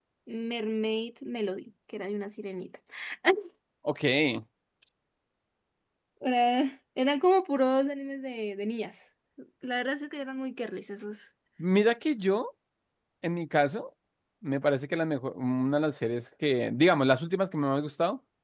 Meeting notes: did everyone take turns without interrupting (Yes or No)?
Yes